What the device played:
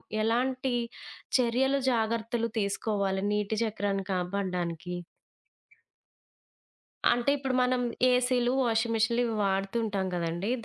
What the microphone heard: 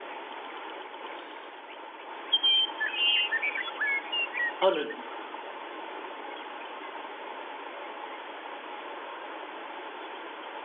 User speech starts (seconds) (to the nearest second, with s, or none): 5 s